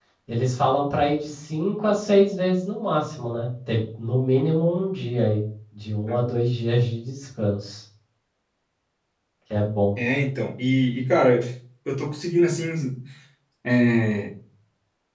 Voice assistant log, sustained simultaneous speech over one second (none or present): none